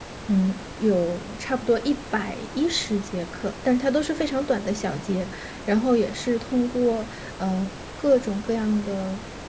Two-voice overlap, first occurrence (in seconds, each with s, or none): none